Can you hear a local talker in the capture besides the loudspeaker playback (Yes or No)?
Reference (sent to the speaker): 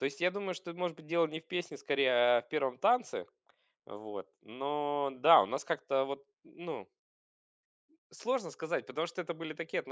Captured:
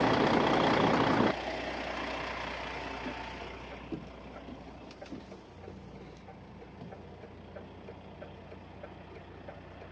No